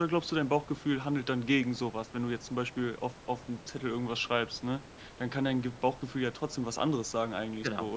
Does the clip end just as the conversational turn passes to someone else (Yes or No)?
Yes